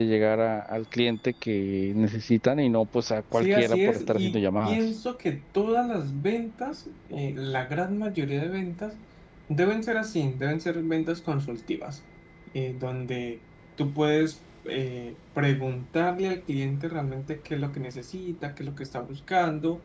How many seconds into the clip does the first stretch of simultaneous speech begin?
3.3 s

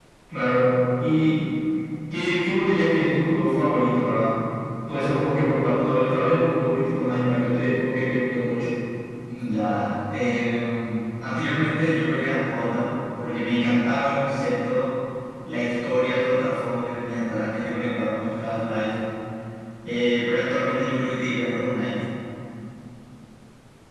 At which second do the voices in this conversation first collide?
none

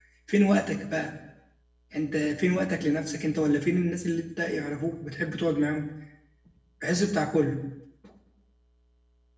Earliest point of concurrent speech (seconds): none

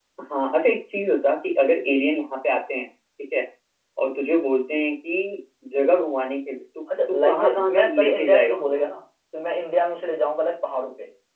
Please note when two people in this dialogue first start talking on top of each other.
6.9 s

